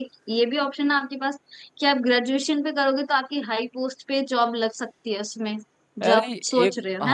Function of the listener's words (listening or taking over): taking over